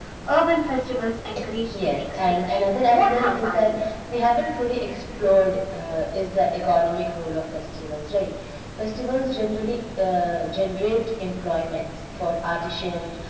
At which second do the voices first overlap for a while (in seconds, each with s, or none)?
1.7 s